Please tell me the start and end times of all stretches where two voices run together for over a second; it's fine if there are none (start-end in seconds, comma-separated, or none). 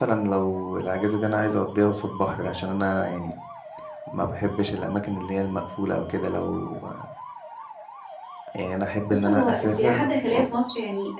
9.1-10.4